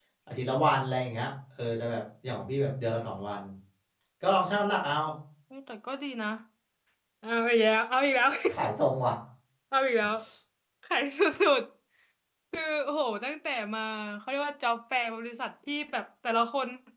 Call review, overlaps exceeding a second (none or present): none